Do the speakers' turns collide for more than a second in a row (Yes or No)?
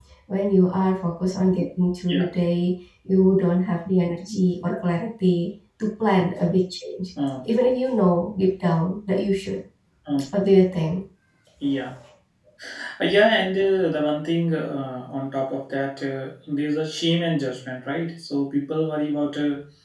No